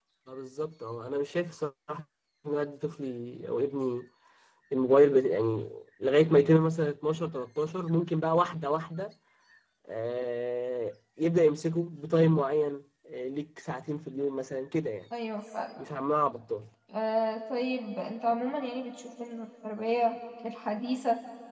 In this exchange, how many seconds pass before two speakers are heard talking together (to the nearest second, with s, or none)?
none